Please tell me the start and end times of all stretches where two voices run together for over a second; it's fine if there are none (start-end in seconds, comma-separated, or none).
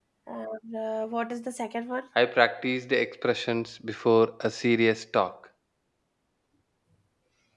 none